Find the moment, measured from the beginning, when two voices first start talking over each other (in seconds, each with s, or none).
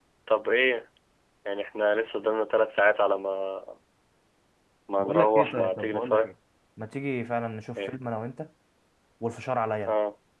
5.0 s